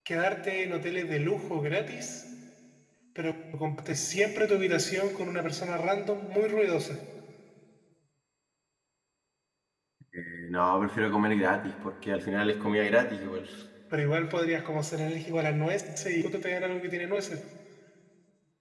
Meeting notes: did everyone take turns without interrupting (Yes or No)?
Yes